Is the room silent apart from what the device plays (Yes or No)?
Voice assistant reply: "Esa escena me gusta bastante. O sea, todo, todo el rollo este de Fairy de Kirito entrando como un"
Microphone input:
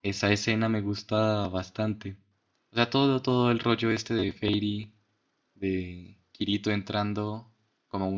Yes